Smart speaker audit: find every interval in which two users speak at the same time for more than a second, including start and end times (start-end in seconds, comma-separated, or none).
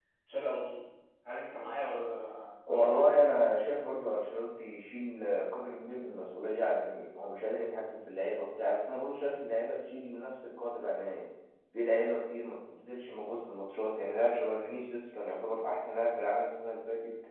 none